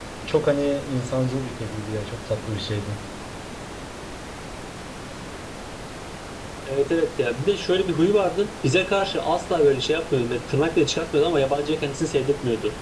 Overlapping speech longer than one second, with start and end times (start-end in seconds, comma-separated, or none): none